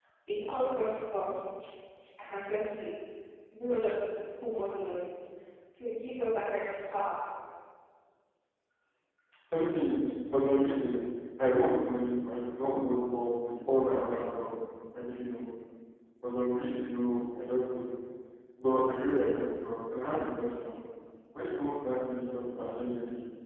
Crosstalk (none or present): none